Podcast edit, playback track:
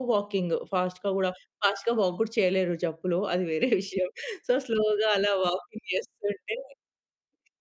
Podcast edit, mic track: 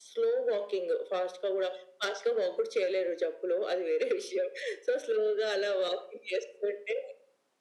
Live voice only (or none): none